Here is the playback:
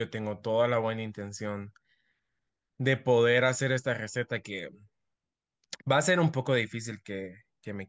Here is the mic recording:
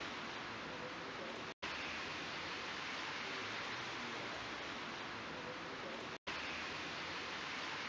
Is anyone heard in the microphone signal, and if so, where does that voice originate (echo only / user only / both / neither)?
neither